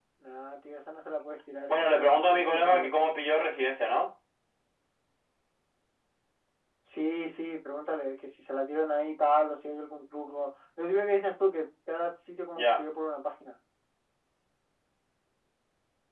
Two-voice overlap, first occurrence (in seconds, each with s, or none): 1.7 s